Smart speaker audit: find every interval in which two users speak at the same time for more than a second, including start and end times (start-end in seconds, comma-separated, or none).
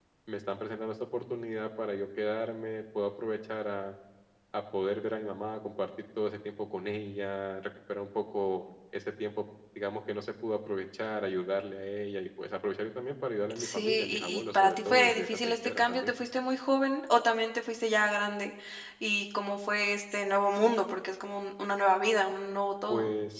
13.6-16.1